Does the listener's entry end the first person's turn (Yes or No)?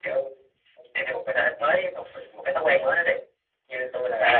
Yes